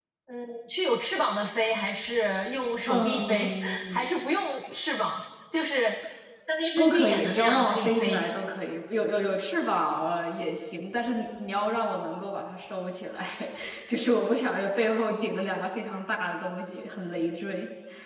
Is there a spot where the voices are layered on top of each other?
Yes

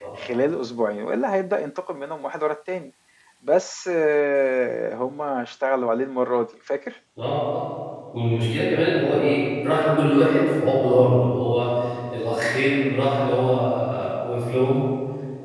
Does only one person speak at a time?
Yes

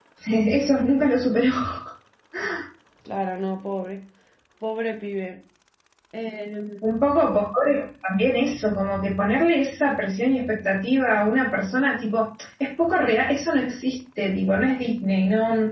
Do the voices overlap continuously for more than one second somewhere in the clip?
No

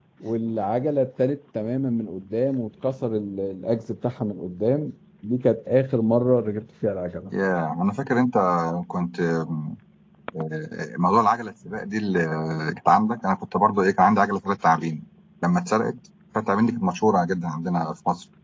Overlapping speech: No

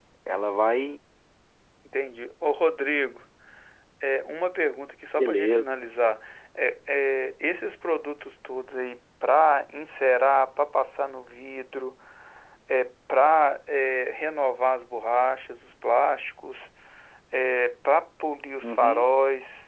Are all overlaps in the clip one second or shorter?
Yes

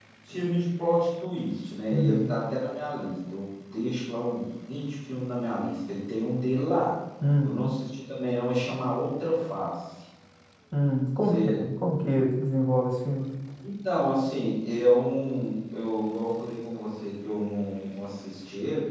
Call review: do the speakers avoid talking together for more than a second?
Yes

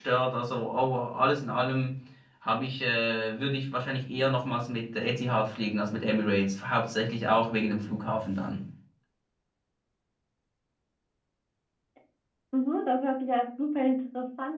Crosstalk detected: No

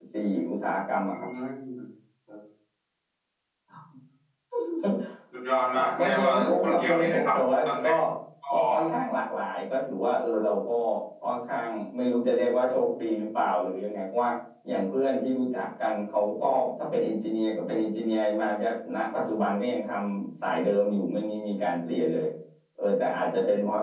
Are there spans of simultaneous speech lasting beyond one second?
Yes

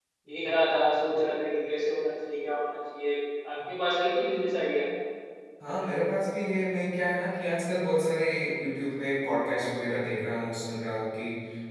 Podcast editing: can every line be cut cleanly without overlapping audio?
Yes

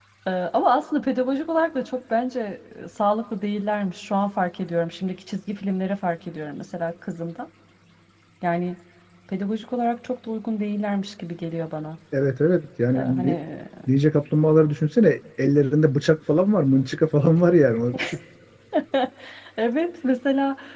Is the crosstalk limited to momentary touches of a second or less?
Yes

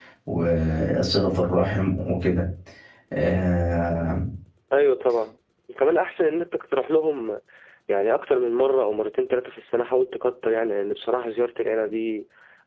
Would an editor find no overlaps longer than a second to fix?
Yes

